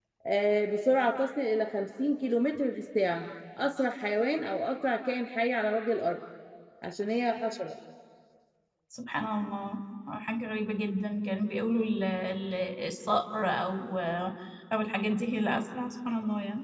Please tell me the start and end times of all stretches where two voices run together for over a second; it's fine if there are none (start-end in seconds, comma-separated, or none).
none